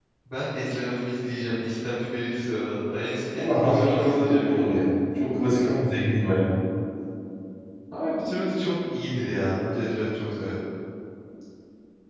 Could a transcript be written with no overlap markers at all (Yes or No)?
No